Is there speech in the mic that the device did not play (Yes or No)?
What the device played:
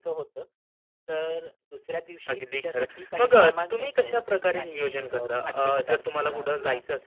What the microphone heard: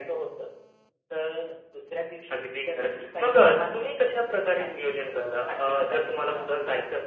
No